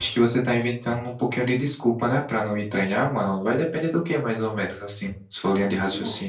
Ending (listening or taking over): taking over